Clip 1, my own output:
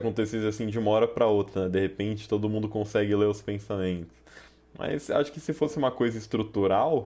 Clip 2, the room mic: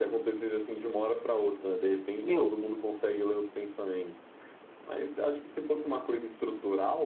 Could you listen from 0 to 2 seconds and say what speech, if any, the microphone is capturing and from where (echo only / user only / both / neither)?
echo only